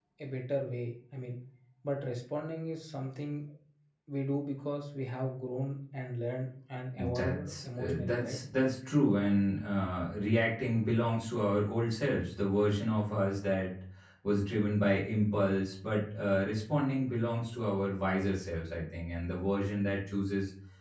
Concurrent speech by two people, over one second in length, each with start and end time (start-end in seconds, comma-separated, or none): 7.0-8.4